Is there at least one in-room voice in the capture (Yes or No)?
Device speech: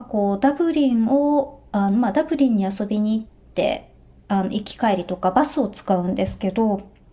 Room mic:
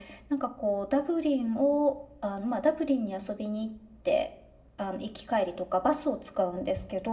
No